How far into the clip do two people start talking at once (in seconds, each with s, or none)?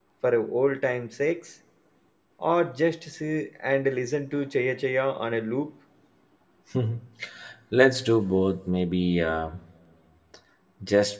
none